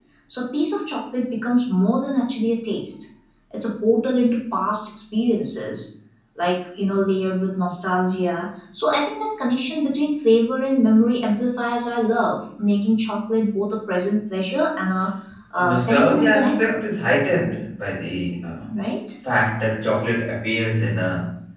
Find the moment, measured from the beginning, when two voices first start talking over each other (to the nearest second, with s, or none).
16 s